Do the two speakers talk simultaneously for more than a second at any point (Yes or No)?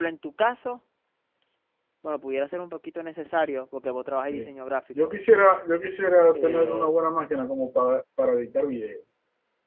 No